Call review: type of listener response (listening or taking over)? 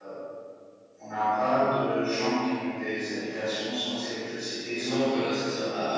taking over